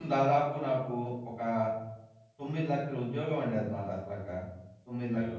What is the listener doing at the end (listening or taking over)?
listening